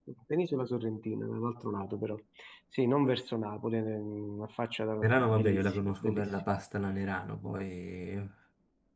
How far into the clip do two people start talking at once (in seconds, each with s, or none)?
5.0 s